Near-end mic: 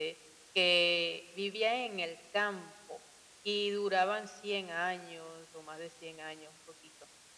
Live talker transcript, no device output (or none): none